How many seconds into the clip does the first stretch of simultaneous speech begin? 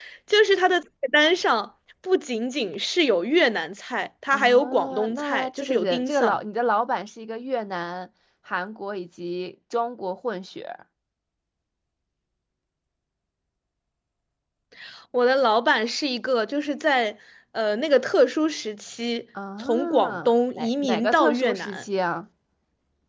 4 s

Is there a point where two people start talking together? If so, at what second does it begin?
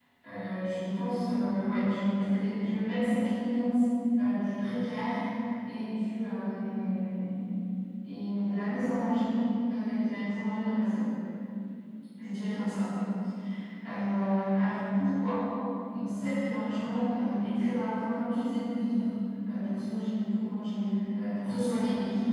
none

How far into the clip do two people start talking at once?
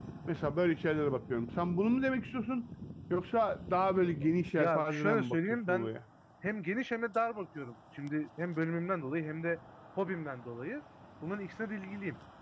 5 s

